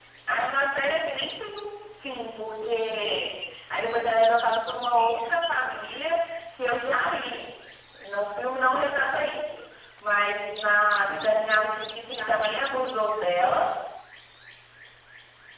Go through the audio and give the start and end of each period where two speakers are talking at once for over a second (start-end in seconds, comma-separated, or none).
11.0-13.0